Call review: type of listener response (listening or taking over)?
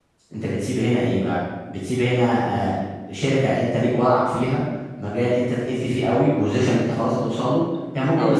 listening